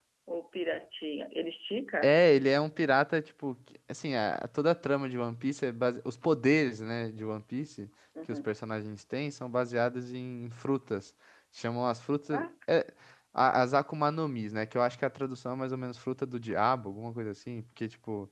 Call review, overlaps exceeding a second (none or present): none